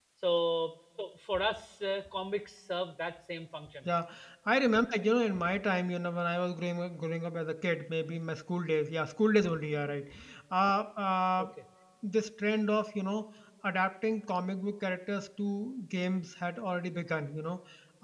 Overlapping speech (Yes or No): No